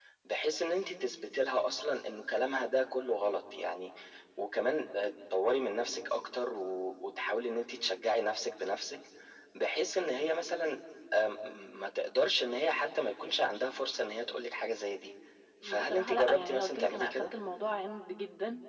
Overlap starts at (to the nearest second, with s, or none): 16 s